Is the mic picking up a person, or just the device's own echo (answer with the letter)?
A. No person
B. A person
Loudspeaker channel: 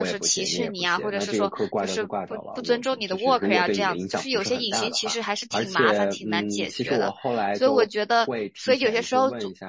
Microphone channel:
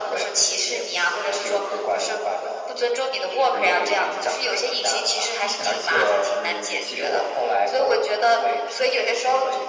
B